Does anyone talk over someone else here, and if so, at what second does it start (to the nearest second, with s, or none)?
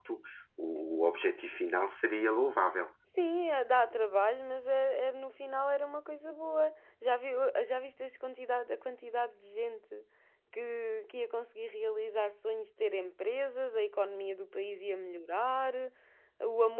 none